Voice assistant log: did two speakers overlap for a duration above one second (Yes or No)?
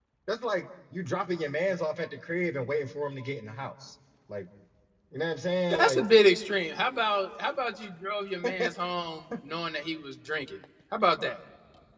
No